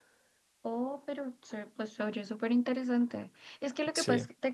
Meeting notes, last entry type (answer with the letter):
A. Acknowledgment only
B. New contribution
A